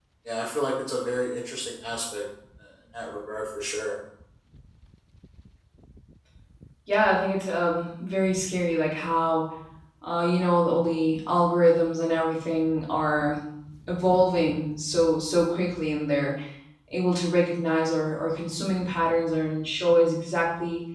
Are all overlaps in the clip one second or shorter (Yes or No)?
Yes